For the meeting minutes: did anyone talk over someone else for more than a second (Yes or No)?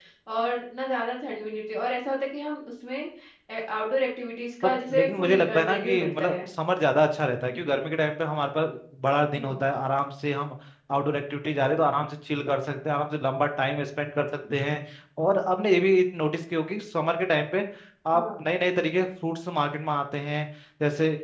Yes